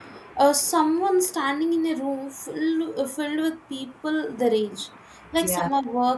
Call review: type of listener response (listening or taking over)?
listening